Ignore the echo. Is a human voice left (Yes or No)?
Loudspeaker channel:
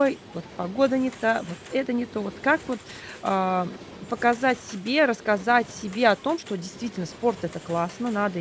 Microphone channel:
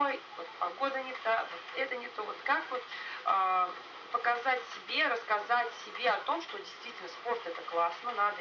No